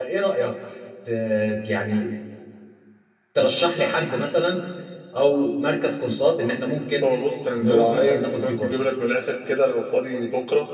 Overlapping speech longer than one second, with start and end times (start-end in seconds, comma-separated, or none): 7.6-8.8